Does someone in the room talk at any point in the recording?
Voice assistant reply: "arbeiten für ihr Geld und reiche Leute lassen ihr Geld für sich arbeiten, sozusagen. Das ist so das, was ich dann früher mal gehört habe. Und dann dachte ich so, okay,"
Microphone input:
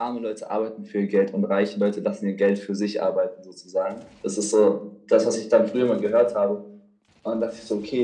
No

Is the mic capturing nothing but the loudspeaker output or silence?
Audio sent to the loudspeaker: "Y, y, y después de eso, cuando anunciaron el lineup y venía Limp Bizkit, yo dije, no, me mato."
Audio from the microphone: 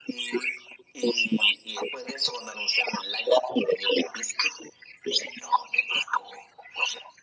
Yes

